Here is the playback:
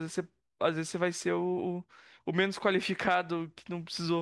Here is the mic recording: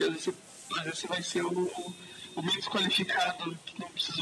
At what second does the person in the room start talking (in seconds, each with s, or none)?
none